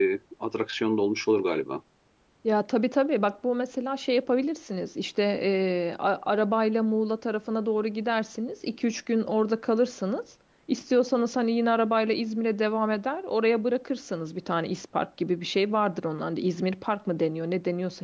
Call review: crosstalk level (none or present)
none